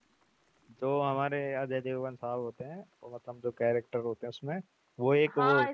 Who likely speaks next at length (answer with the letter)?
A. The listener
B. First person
A